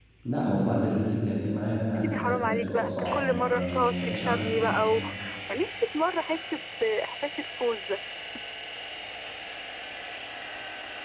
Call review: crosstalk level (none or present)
present